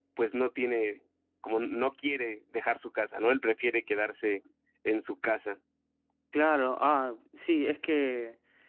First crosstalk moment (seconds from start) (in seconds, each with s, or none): none